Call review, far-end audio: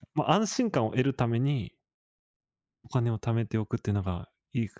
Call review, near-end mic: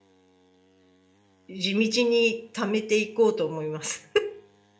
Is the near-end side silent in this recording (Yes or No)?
No